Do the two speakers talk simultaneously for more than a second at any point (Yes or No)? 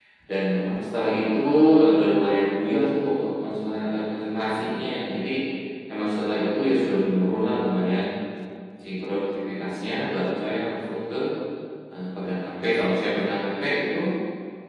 No